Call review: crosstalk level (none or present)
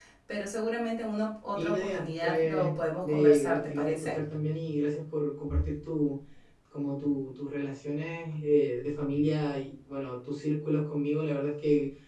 present